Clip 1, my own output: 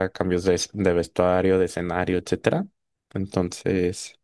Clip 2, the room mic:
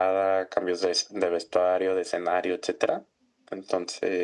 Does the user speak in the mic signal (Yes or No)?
No